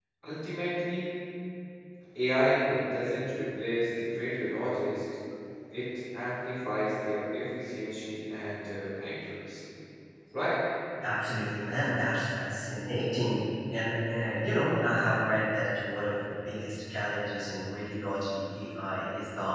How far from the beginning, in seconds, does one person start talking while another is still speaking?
none

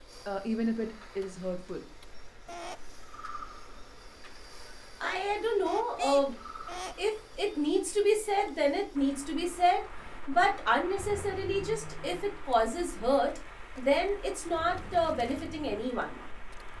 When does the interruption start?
none

